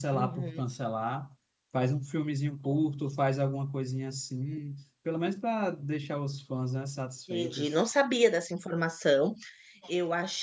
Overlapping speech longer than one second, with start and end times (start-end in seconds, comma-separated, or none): none